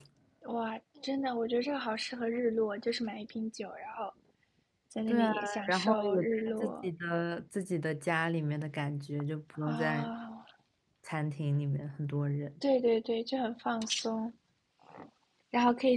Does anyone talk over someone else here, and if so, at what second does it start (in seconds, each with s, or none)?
5.1 s